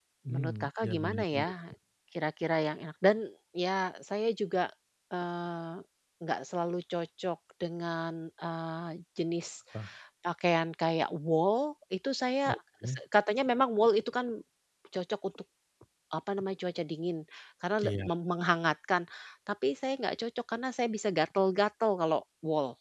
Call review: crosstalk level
present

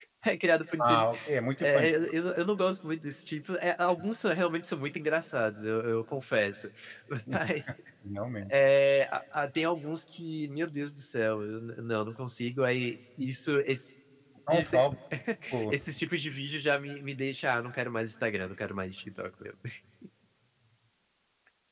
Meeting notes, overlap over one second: none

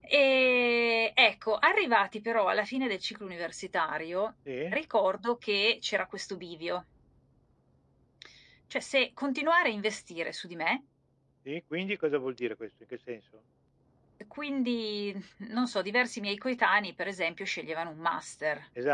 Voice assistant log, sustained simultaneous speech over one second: none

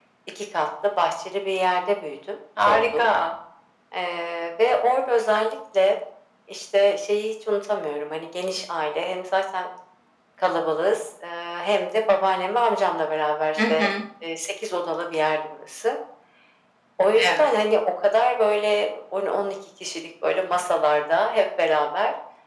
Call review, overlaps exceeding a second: none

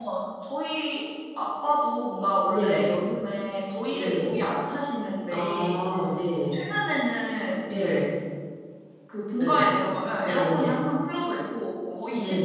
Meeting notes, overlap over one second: none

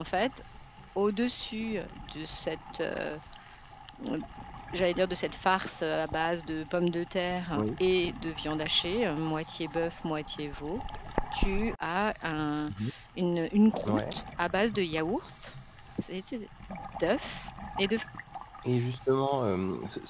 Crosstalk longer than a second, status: none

